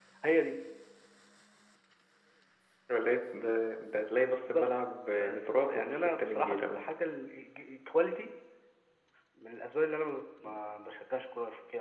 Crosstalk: present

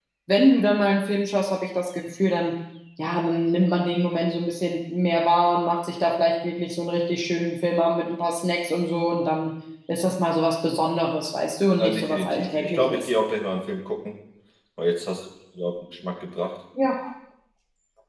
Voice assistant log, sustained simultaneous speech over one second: present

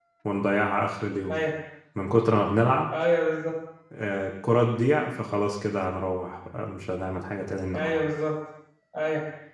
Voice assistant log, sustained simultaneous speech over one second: none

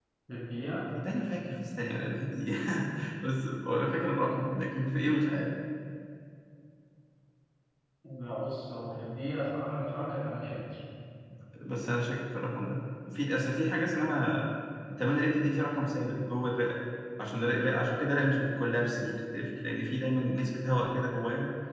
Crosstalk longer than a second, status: none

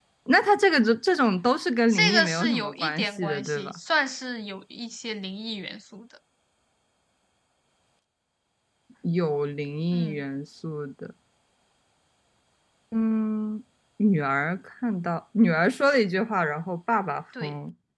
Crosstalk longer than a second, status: present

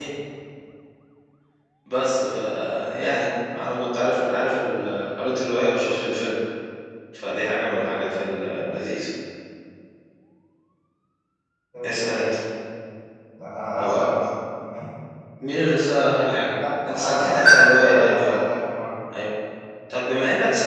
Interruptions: present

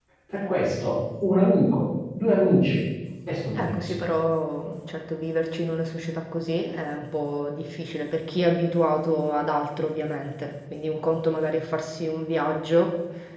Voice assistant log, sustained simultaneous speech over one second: none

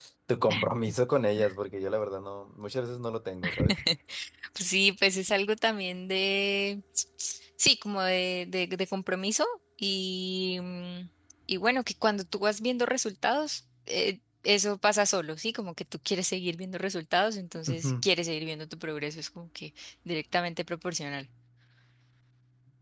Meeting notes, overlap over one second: none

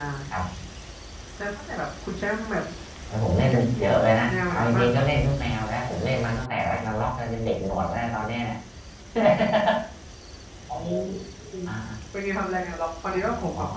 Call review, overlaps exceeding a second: present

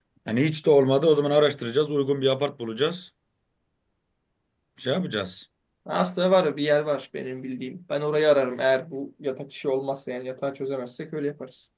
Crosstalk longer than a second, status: none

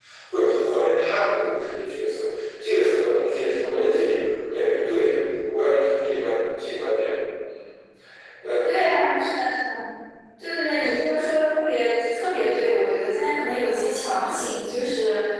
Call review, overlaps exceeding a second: none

